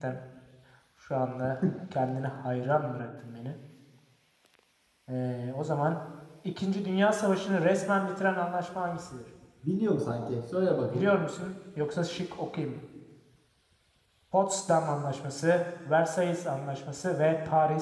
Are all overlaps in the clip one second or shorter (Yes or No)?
Yes